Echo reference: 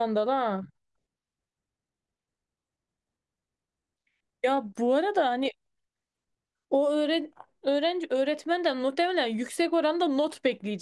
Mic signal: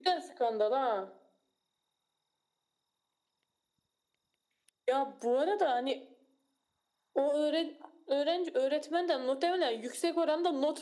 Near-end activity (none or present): none